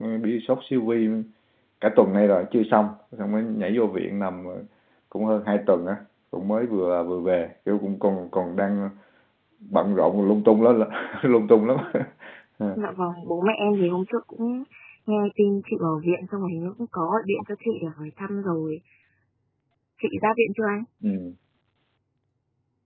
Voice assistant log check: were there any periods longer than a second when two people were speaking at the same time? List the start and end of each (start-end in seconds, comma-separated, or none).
none